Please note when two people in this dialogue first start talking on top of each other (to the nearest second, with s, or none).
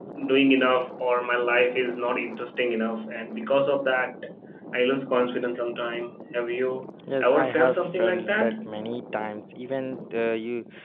7 s